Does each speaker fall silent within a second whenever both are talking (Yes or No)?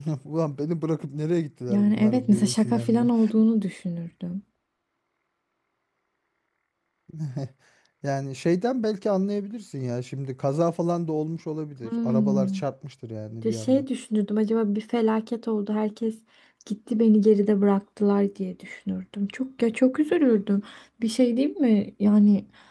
No